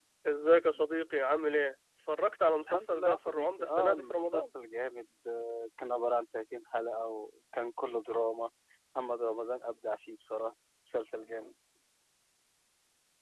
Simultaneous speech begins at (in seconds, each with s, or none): 2.7 s